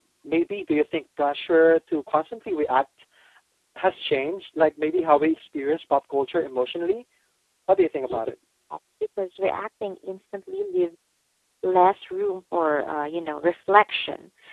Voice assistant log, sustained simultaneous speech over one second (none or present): none